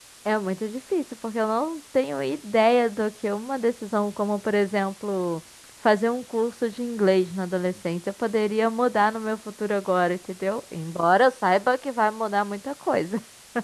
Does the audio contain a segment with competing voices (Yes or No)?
No